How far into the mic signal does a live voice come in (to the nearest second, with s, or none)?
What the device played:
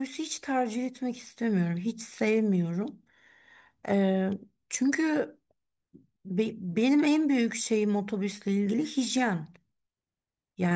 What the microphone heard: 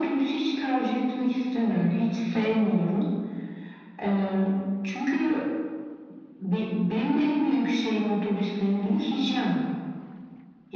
none